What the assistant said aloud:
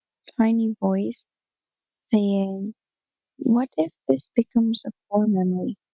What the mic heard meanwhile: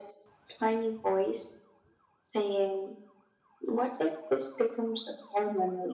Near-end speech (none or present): none